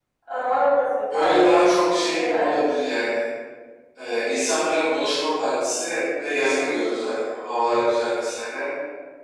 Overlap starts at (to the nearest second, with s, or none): 1 s